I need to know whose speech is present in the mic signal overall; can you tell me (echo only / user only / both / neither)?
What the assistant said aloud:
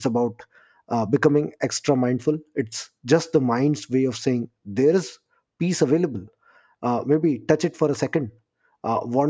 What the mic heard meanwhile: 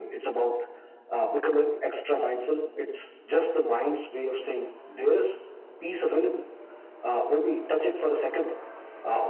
echo only